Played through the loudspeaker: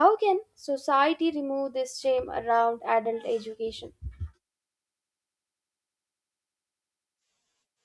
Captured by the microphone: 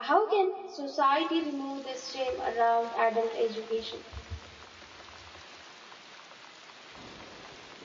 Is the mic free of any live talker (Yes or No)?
Yes